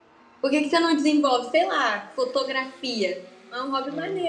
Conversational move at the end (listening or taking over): taking over